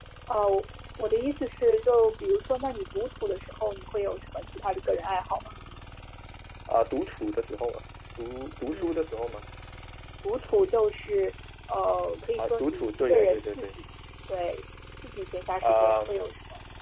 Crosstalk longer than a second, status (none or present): present